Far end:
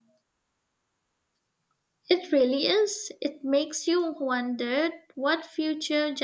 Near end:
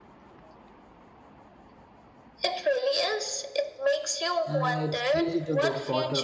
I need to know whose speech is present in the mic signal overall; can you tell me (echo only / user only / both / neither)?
both